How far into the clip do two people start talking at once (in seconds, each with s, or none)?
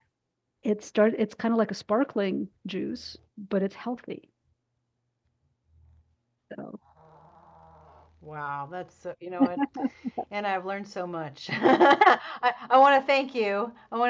none